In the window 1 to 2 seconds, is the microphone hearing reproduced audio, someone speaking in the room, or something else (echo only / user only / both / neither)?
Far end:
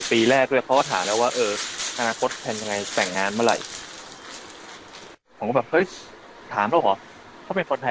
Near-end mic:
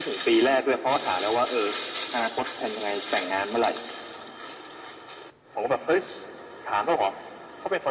echo only